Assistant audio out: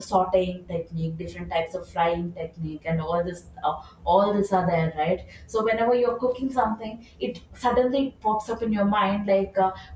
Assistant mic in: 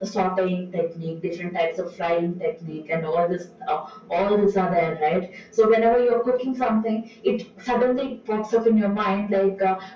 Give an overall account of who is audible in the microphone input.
echo only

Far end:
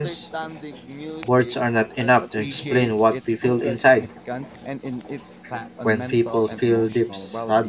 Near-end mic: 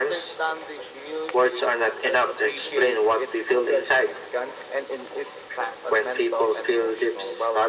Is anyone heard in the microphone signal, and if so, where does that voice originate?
echo only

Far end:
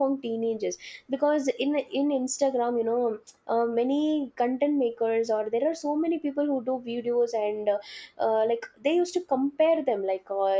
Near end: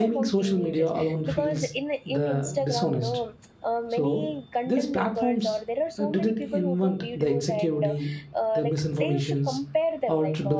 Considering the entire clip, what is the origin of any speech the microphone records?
both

